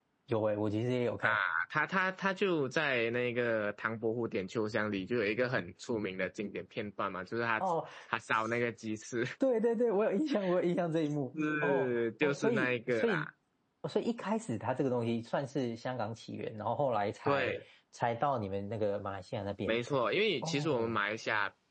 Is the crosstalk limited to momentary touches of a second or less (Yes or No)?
No